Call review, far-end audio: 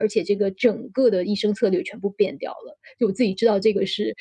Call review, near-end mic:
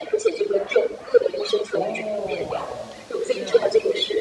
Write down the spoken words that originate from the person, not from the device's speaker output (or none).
哦，是这样子的。